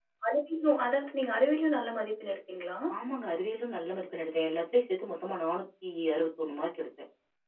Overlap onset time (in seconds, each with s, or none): none